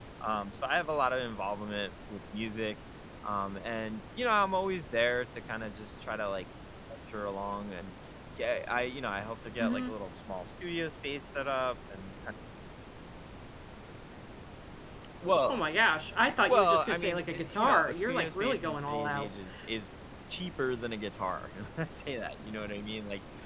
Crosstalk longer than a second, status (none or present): present